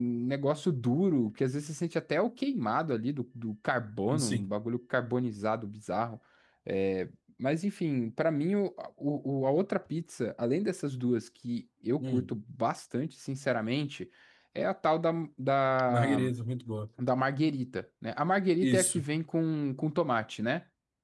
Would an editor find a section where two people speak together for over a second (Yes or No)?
No